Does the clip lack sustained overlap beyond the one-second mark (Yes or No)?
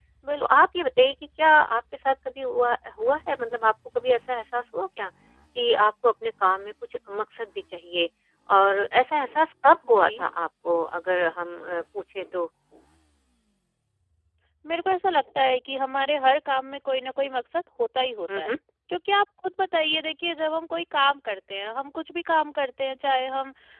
Yes